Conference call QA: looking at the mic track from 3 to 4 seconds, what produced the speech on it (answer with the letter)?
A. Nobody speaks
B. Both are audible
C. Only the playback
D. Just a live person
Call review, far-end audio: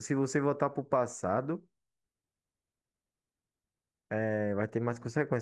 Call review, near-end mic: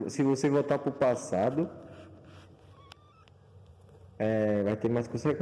A